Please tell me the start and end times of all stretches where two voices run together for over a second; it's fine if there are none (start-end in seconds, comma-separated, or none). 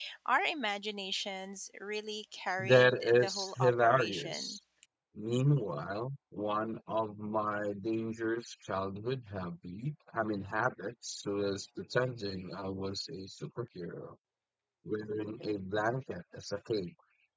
2.6-4.6